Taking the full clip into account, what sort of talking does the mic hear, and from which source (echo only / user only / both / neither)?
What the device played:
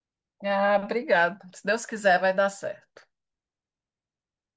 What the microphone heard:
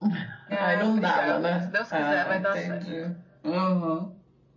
both